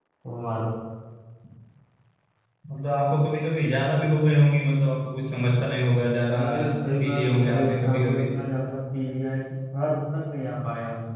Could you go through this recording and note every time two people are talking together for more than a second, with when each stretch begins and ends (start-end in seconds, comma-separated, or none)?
7.0-8.4